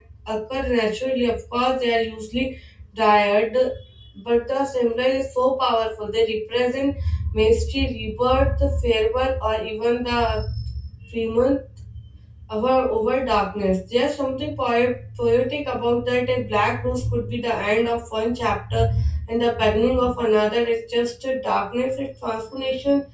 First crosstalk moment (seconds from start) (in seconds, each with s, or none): none